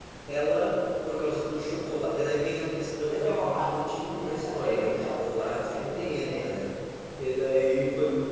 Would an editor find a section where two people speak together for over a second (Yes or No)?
Yes